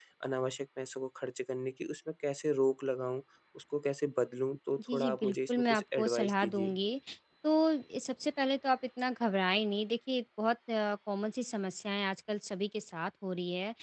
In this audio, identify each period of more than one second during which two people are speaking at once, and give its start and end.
4.9-6.8

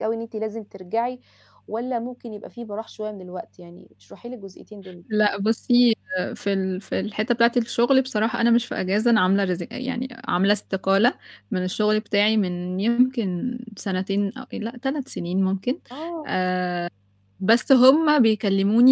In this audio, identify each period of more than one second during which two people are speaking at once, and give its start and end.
none

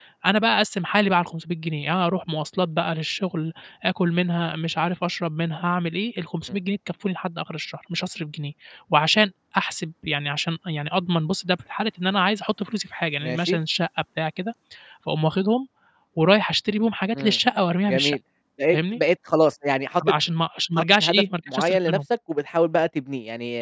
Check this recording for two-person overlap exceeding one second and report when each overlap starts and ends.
20.8-22.0

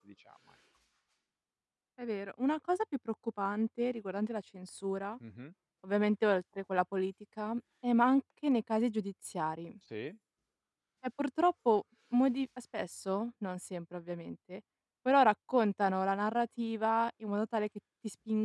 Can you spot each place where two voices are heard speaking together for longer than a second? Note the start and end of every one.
none

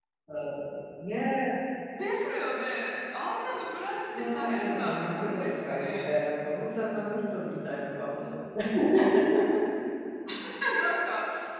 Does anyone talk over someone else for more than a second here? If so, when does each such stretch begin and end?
4.1-6.1

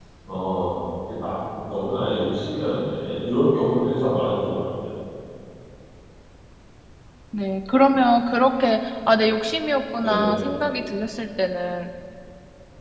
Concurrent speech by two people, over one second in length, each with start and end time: none

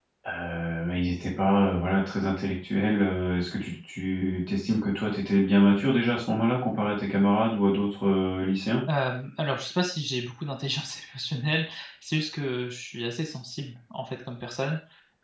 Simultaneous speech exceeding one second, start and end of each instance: none

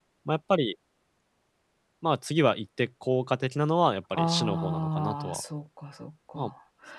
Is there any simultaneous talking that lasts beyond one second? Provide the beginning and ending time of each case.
4.1-5.4

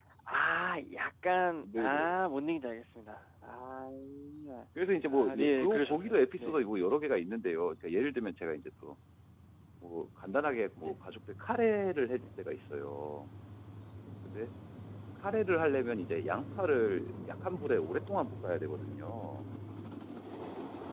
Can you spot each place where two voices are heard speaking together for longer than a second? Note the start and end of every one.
5.1-6.6

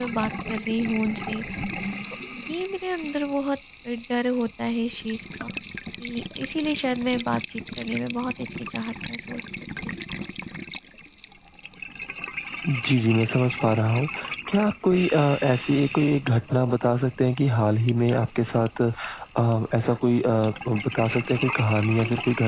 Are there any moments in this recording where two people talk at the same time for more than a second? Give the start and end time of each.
none

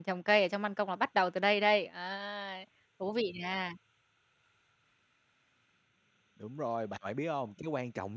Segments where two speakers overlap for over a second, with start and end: none

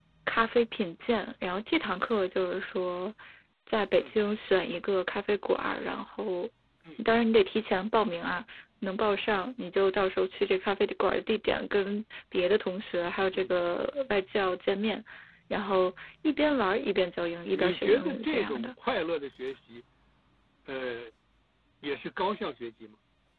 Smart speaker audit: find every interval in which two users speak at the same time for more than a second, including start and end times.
17.5-18.7

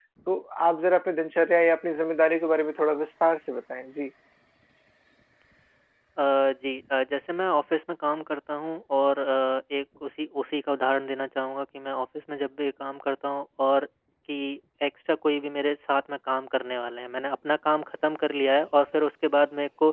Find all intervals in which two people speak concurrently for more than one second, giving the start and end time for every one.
none

